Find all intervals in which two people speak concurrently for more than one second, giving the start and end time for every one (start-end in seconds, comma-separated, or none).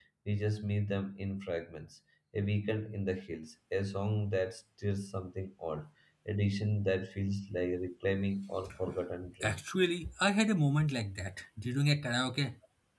none